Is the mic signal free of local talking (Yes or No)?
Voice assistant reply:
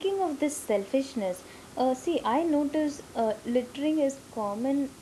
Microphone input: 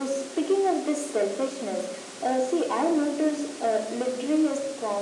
Yes